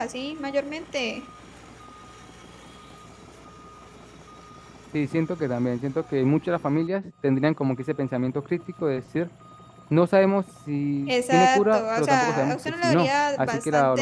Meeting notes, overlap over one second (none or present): present